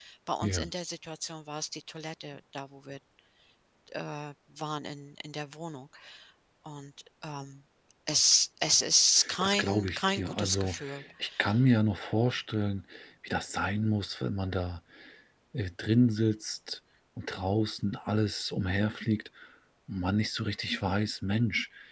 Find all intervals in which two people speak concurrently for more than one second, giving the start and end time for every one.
9.4-10.8

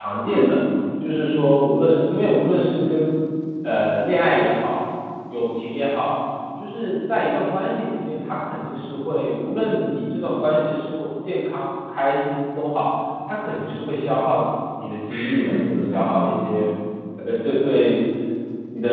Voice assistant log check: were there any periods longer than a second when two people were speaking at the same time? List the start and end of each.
15.1-16.3

